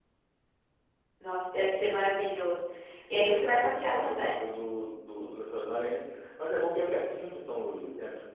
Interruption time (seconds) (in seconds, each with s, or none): 3.1 s